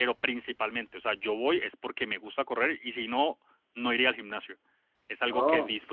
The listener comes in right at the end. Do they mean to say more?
No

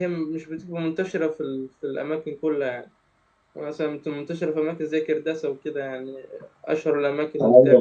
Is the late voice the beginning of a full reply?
Yes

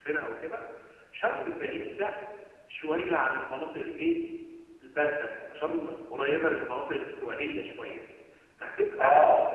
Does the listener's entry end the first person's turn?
No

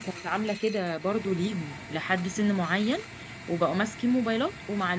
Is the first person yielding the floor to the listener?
No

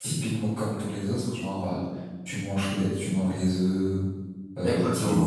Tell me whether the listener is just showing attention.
No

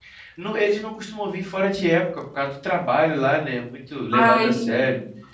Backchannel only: Yes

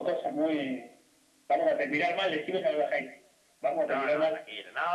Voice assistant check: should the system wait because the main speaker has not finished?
No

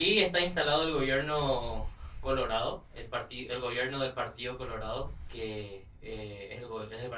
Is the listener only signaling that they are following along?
Yes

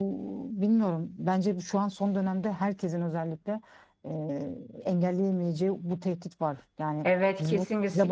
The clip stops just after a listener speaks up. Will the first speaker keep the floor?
No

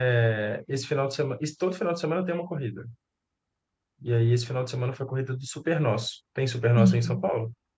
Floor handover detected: Yes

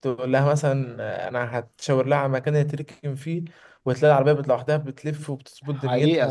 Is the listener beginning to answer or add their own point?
Yes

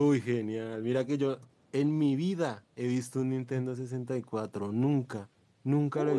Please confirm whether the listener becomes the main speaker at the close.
Yes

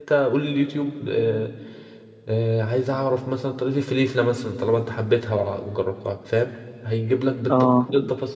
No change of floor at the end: Yes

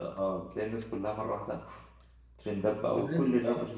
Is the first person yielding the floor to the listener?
Yes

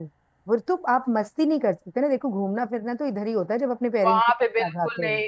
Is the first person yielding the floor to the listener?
Yes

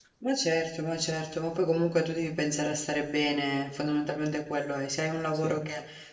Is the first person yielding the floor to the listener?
No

